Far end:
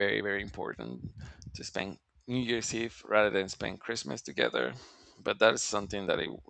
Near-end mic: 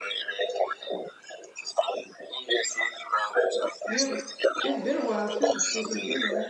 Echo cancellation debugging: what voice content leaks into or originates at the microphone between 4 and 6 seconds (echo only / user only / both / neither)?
both